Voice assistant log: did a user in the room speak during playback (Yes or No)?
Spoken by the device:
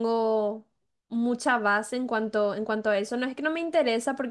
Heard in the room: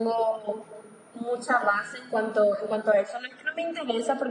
No